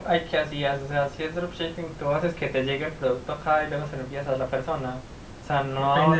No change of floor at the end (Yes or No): No